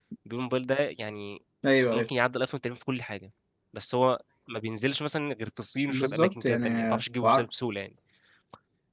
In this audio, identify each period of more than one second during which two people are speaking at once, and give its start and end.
5.9-7.5

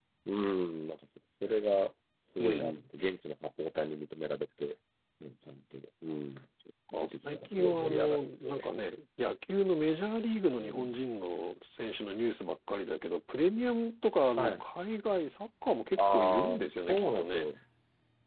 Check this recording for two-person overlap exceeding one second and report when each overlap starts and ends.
7.0-8.7, 16.0-17.4

